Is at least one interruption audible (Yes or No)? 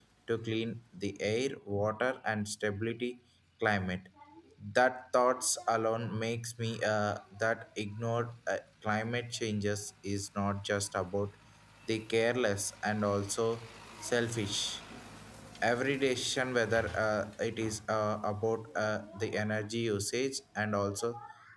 No